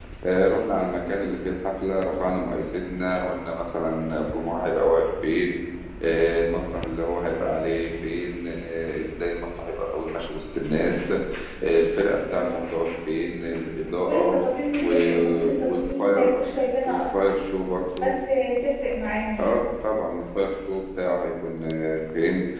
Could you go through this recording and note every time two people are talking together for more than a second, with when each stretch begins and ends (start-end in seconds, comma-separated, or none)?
14.8-16.4